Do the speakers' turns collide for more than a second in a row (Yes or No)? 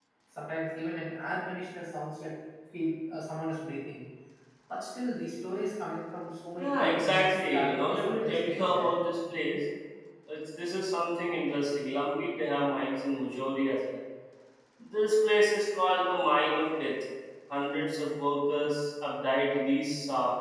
Yes